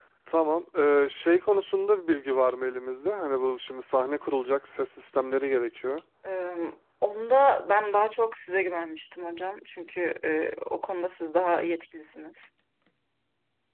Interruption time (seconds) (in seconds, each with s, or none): none